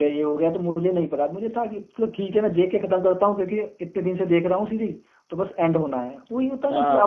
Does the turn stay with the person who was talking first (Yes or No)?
No